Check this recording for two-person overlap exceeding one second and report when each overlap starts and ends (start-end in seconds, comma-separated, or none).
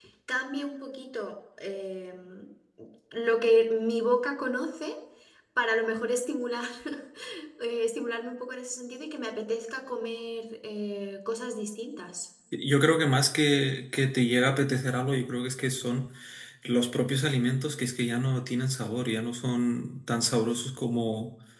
none